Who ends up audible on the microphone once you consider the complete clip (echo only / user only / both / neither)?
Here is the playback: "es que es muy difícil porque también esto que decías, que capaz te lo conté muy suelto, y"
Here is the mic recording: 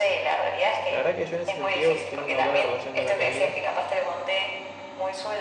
both